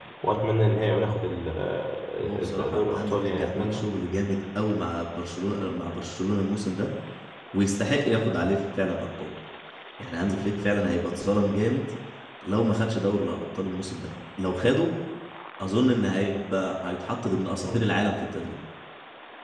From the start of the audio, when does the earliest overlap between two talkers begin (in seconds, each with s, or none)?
2.2 s